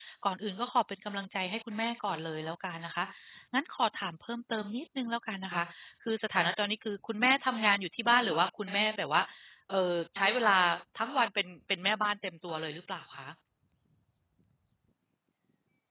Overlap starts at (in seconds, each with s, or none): none